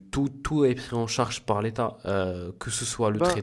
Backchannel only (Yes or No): Yes